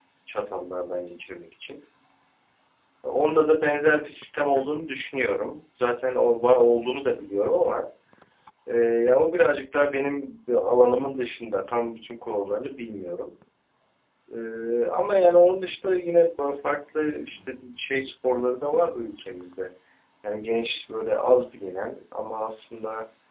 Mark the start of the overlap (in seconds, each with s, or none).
none